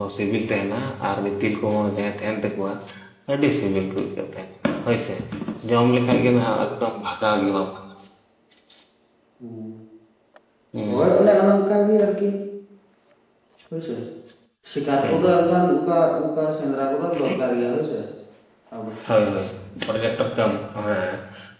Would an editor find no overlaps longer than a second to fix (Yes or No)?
Yes